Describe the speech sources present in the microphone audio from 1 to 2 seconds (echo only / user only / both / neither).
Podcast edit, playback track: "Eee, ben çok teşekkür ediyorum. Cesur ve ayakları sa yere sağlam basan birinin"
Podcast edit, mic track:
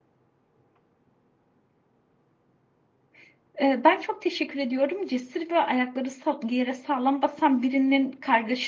neither